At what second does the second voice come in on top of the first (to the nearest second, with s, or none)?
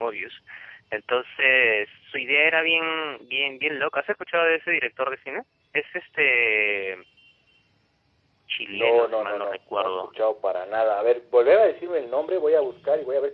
9 s